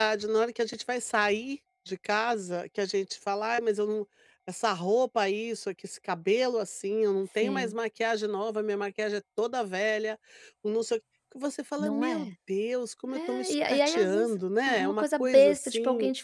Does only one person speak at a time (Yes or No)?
No